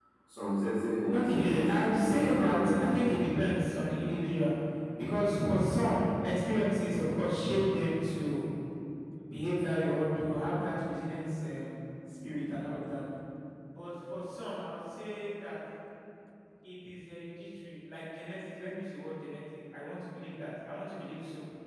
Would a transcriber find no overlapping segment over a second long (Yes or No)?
No